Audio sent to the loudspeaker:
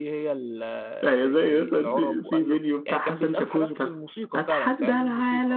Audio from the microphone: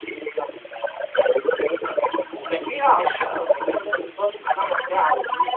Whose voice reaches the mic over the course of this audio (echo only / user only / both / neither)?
both